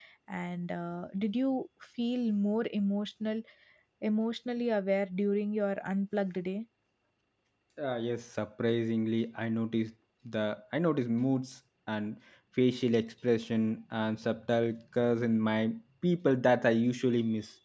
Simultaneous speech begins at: none

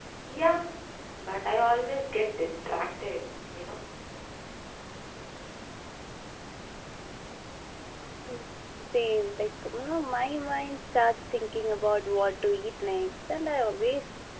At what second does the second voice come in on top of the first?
none

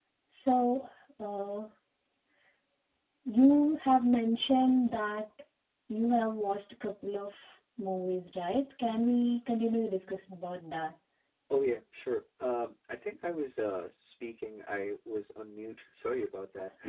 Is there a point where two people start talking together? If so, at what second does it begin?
none

